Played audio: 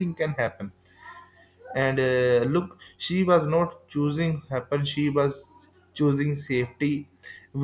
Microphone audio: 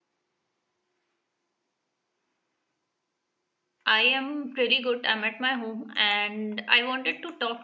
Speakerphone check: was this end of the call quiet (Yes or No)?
No